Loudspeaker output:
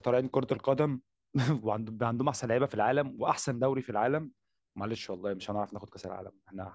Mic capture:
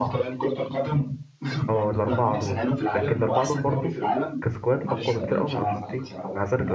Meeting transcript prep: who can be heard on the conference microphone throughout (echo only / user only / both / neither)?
both